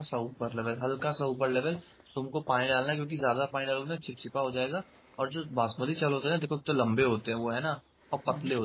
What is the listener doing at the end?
listening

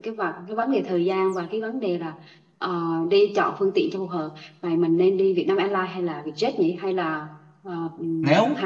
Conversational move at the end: taking over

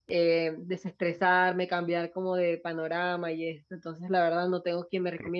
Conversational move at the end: listening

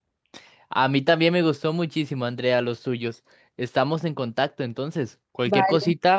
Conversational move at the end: listening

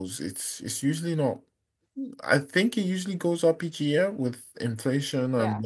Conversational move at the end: listening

